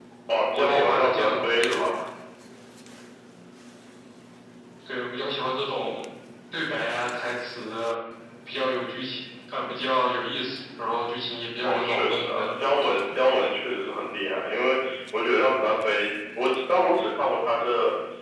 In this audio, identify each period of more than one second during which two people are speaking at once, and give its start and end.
0.5-1.9, 11.6-13.1

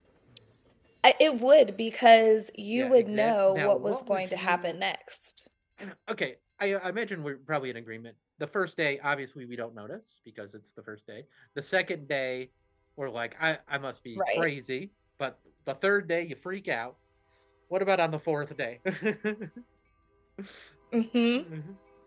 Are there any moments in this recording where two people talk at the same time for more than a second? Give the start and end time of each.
2.8-4.8

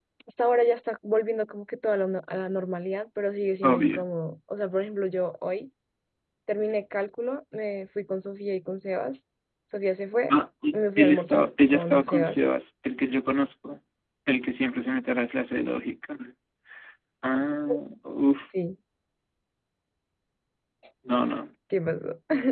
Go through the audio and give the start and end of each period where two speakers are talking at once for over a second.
10.7-12.4

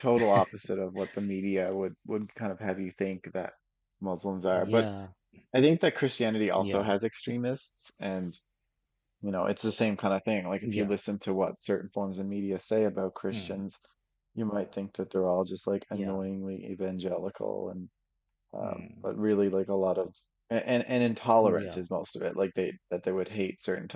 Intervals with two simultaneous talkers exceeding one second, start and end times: none

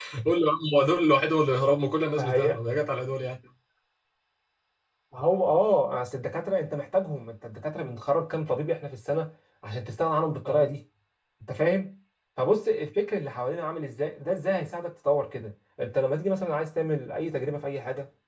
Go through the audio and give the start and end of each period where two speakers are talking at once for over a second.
none

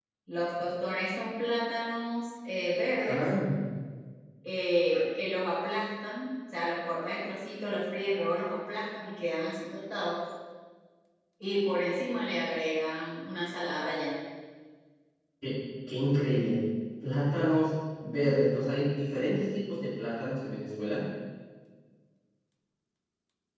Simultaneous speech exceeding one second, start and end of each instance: none

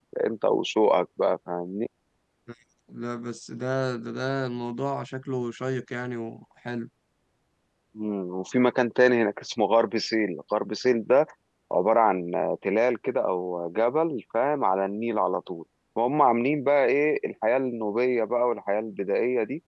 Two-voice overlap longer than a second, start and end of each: none

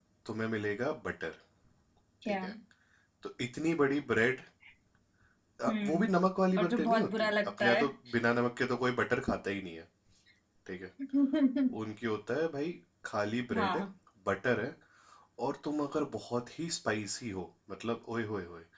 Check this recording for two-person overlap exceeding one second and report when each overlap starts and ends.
6.6-7.8

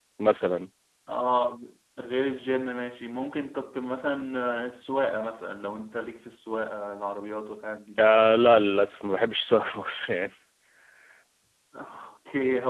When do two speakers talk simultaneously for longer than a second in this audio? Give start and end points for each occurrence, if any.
none

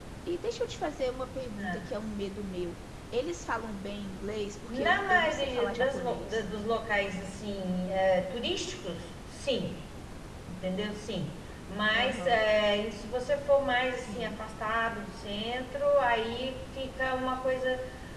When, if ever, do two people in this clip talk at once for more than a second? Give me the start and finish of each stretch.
4.7-6.5

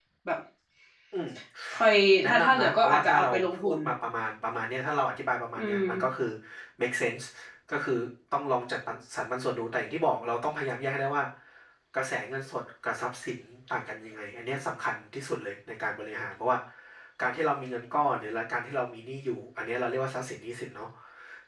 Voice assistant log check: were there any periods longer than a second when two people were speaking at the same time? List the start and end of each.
2.2-3.8

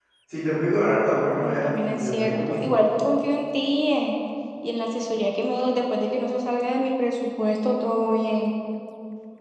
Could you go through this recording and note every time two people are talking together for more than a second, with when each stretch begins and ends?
1.4-2.6

